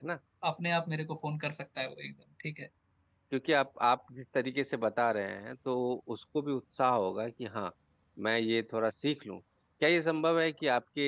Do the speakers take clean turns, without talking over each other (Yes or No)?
Yes